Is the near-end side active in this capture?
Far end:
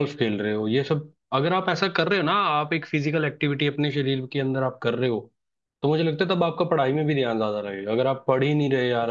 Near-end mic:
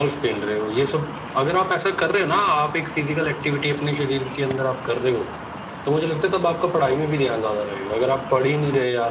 No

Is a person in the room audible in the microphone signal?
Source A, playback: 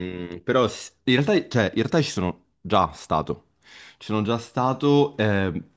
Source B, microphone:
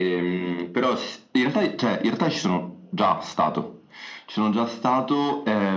No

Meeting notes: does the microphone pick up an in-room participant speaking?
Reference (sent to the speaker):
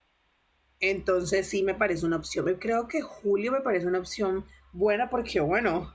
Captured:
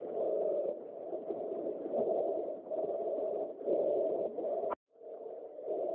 No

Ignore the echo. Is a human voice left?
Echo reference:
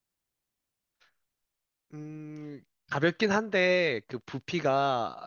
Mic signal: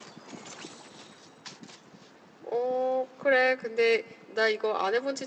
Yes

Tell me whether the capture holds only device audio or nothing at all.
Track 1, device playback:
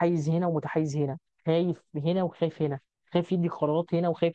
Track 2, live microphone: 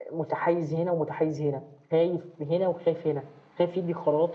Yes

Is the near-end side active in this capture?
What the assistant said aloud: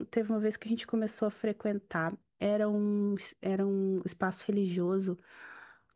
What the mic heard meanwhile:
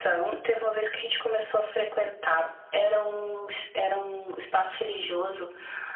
No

